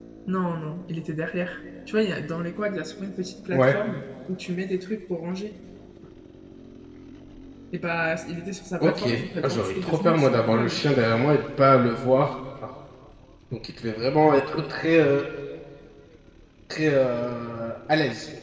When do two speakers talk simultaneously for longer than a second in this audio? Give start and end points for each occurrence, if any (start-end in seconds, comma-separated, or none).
9.4-10.8